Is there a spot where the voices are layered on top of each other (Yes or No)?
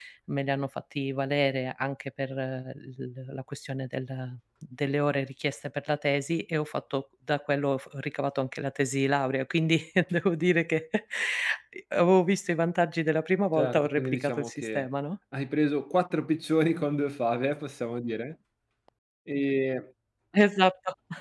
Yes